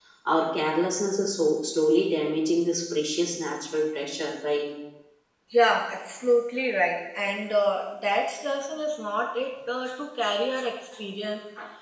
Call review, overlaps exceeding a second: none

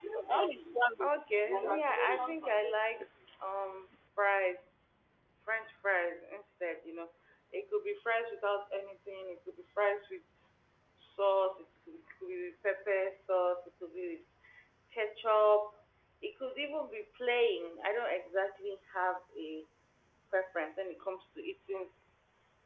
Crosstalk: present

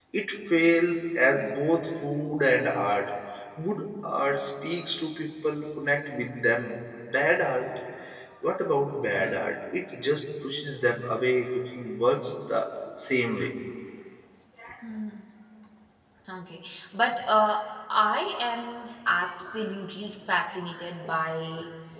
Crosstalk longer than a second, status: none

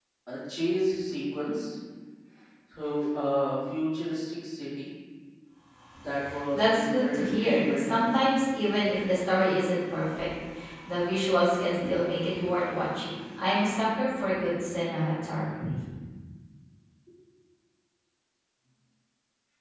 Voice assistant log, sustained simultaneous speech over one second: present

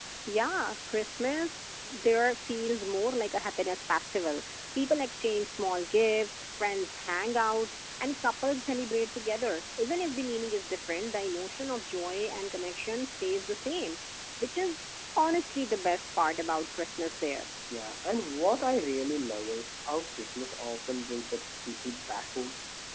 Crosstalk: none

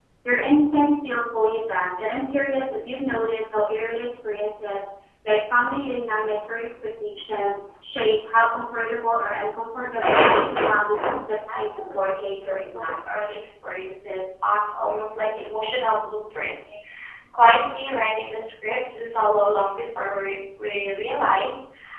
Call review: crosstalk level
present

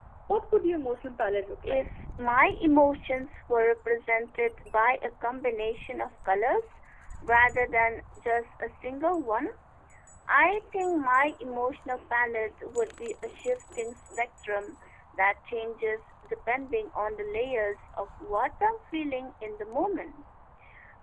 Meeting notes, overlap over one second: none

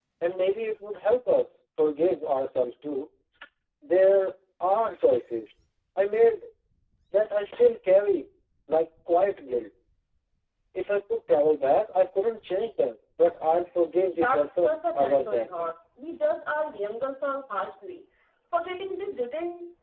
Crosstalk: present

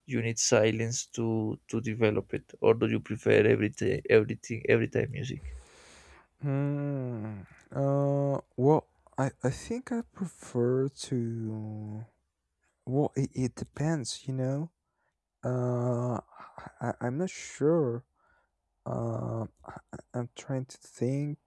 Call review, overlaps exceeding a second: none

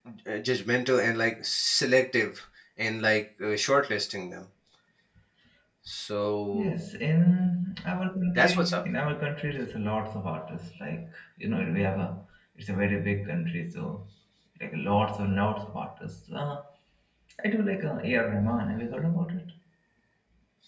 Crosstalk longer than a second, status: none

